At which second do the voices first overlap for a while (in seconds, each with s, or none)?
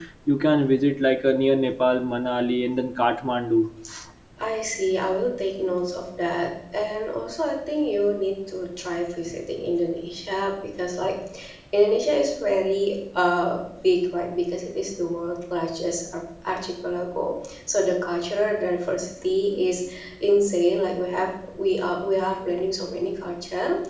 none